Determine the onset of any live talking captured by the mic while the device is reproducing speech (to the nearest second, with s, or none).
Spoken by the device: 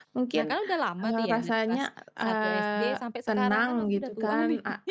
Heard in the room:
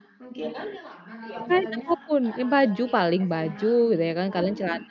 1 s